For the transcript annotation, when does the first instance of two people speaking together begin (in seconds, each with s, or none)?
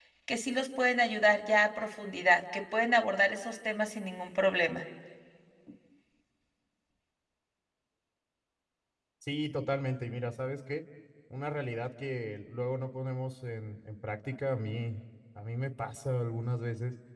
none